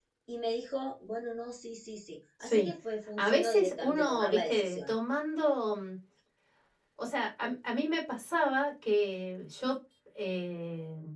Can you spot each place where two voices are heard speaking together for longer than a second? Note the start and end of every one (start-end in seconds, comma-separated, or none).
3.2-4.9